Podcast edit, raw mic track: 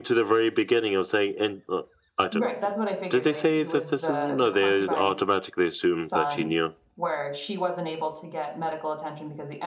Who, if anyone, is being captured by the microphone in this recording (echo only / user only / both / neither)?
both